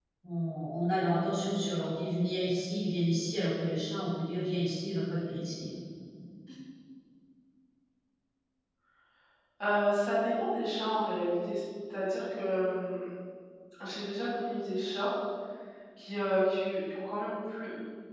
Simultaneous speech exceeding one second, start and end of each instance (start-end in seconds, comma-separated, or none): none